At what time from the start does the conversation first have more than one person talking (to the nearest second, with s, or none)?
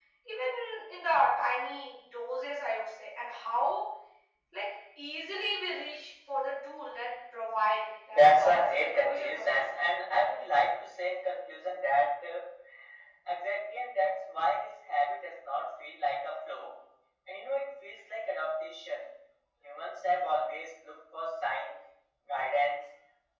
8 s